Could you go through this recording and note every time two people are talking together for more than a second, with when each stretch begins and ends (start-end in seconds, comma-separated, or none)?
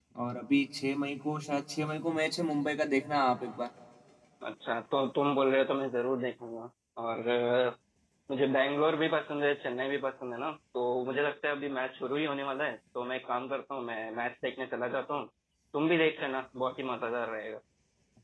none